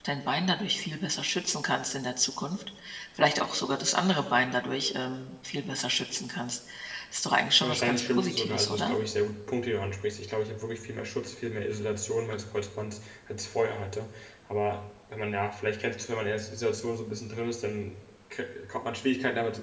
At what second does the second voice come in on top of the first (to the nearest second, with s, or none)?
8 s